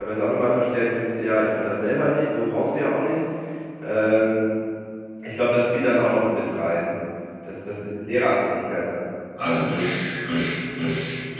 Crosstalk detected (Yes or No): No